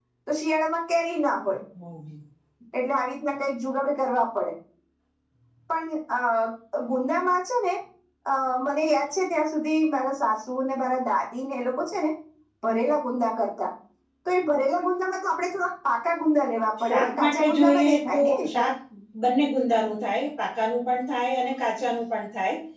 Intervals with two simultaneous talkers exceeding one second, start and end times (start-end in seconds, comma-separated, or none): 16.9-18.7